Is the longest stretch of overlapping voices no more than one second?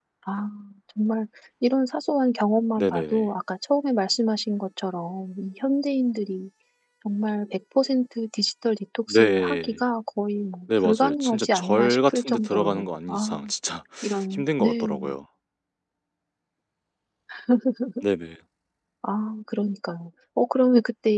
No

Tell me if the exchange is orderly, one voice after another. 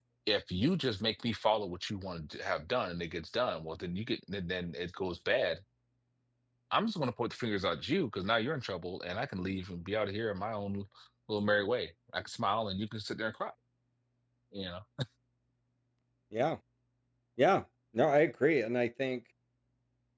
Yes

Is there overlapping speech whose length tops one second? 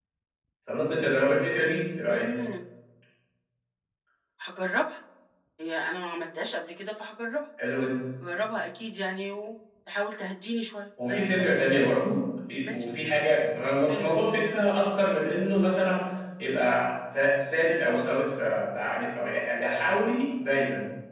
No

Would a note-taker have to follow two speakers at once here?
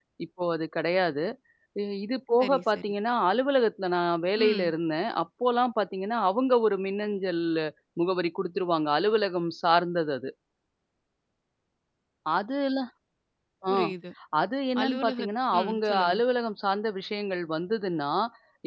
Yes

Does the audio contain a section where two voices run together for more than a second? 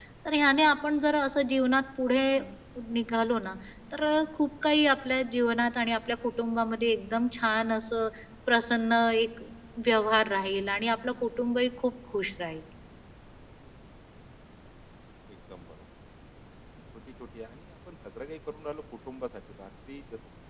No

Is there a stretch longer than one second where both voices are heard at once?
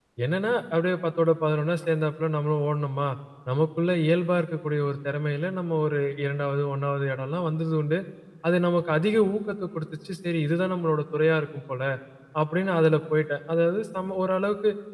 No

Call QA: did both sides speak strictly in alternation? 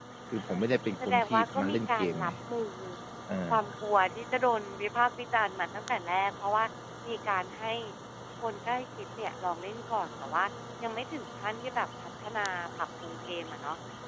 No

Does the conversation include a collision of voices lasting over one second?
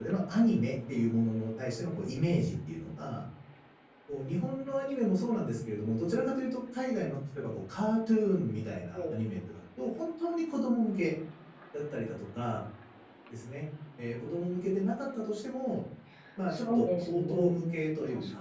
Yes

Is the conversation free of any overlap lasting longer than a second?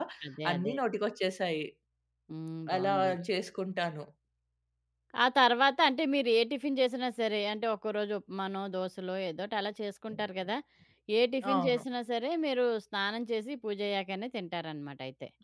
Yes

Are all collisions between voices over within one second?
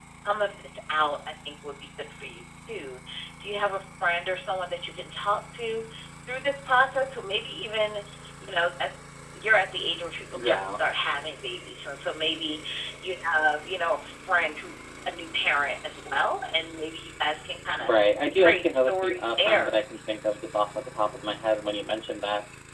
No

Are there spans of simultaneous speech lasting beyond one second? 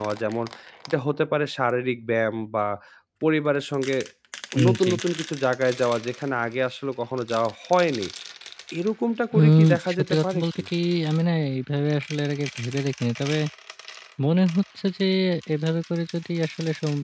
Yes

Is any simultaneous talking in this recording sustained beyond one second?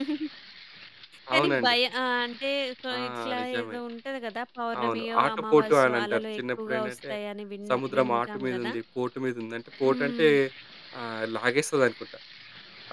Yes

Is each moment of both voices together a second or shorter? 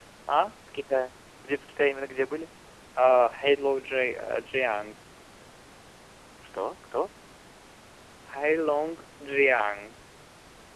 Yes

